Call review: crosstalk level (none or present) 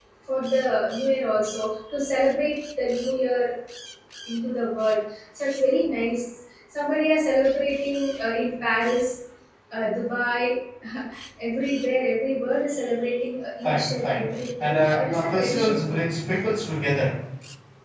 present